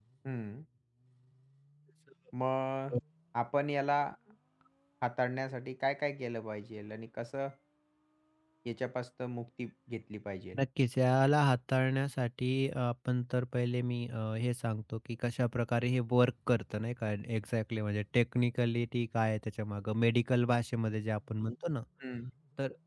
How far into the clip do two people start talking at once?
none

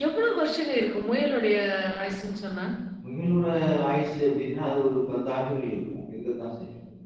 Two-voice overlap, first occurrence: none

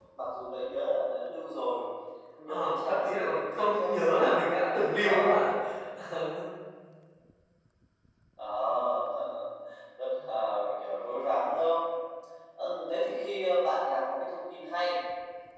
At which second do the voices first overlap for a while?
2.5 s

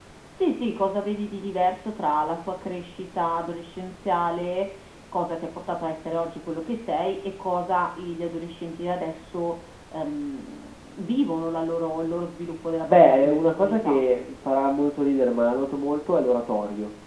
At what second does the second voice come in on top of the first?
12.8 s

